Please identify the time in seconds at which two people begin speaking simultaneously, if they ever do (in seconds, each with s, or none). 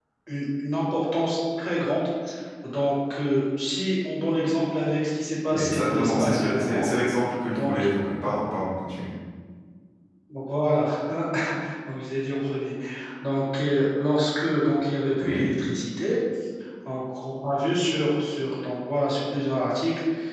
5.5 s